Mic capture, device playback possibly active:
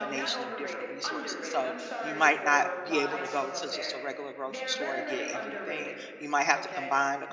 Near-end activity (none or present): present